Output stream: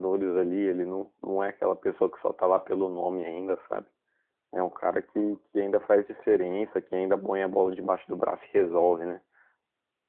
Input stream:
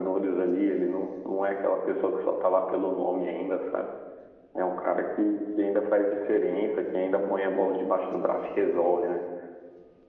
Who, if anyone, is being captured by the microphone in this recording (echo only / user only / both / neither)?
echo only